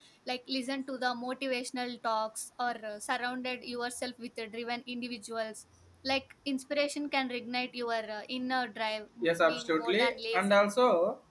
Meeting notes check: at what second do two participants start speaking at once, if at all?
9.2 s

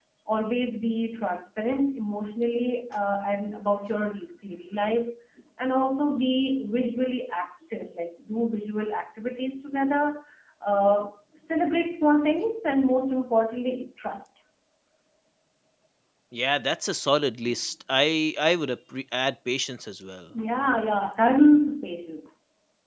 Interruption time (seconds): none

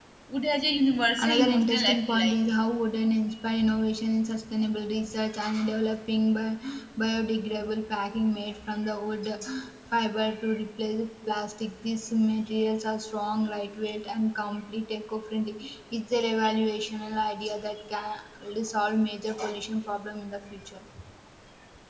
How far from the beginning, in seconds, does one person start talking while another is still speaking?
1.2 s

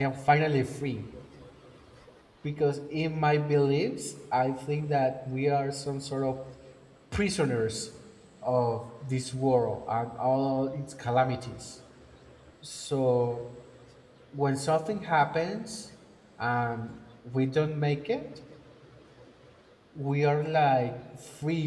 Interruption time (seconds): none

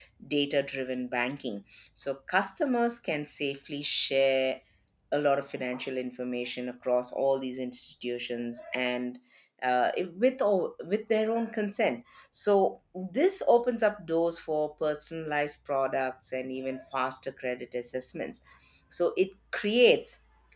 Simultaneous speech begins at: none

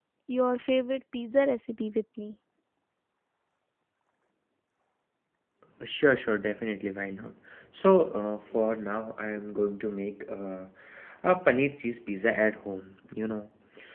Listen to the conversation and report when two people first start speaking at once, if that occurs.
none

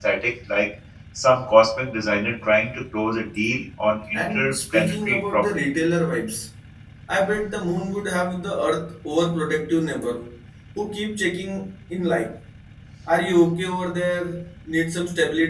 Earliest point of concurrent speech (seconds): 4.1 s

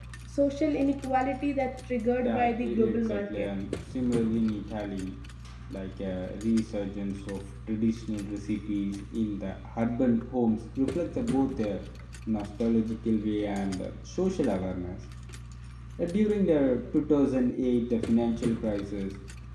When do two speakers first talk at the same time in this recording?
2.2 s

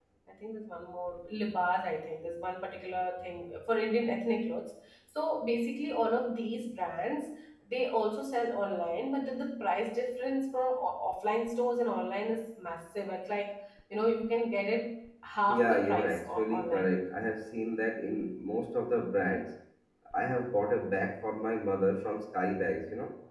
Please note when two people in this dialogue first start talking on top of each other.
15.5 s

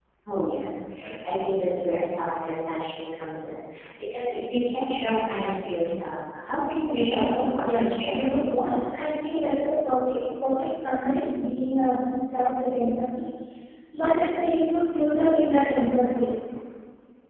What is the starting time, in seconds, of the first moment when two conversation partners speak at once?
6.8 s

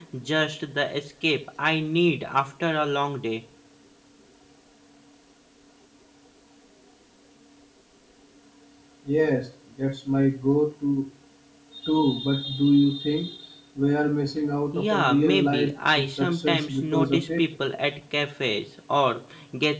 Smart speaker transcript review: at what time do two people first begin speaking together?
14.7 s

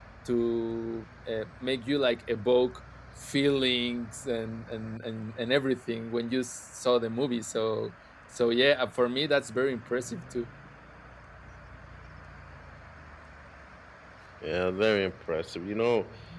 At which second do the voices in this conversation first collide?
none

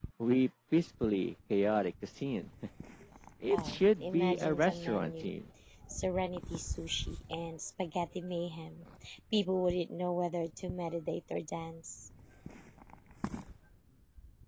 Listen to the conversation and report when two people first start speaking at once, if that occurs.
3.5 s

